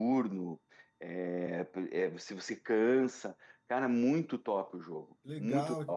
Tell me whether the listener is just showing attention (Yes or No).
No